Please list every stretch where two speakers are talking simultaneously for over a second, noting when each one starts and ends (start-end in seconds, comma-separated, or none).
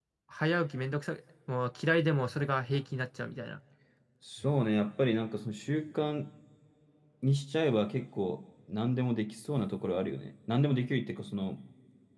none